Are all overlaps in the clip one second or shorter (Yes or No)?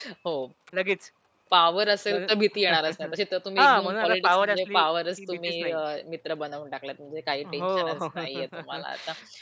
No